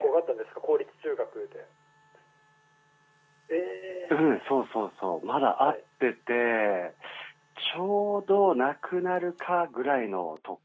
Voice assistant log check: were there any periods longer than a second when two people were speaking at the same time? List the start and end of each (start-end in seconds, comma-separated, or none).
none